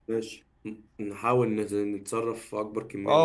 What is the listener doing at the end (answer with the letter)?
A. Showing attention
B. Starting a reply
B